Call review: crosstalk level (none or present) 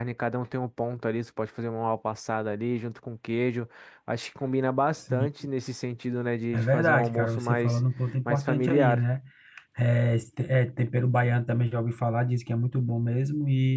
present